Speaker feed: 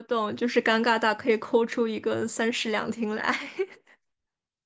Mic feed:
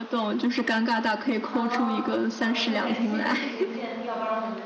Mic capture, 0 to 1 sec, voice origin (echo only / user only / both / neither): echo only